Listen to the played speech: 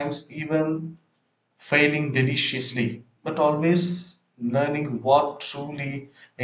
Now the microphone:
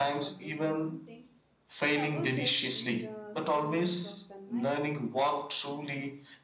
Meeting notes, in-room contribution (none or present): present